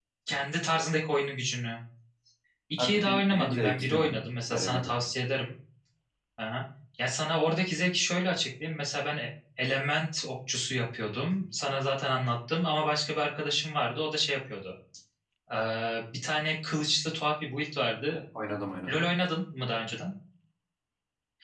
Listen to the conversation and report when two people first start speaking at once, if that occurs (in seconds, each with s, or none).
2.8 s